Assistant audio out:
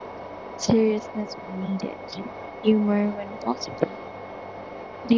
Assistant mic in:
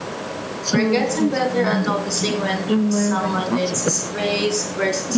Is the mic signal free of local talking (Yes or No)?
No